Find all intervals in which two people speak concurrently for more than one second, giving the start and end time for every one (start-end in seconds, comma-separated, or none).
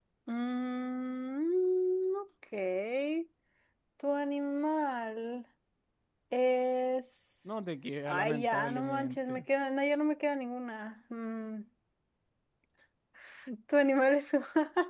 8.1-9.4